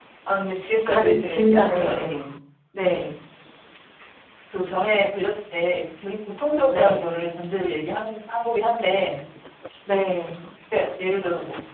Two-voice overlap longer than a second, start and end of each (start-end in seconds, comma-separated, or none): 0.7-2.0